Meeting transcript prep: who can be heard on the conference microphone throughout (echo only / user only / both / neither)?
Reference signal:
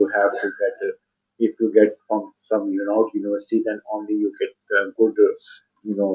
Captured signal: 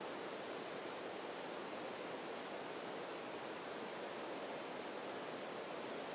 neither